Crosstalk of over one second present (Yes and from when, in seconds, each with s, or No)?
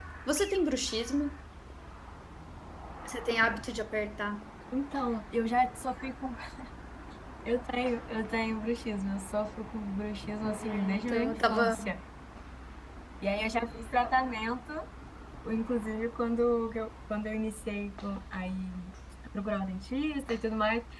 Yes, from 10.4 s